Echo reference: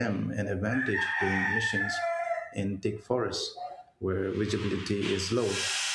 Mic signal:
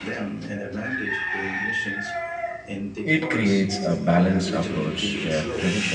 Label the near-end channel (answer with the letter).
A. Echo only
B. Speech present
B